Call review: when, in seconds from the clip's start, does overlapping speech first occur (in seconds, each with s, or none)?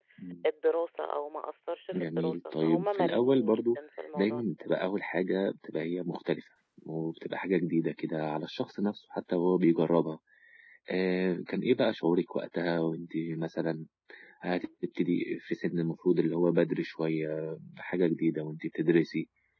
1.9 s